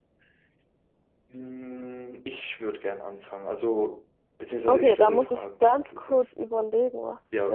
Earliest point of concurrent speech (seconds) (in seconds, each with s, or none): 4.7 s